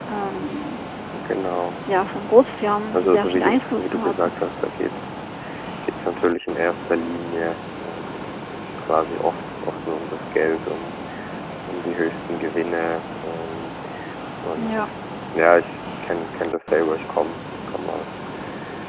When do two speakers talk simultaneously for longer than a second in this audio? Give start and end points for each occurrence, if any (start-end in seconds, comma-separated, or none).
2.9-4.3